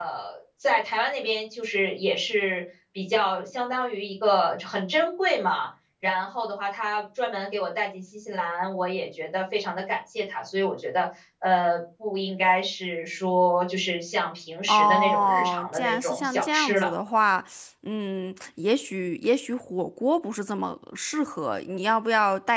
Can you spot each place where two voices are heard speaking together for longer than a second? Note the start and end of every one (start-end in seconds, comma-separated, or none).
14.7-16.9